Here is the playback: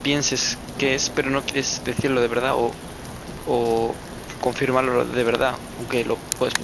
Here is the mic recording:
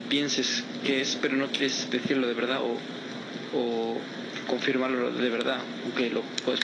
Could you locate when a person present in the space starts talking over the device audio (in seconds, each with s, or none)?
none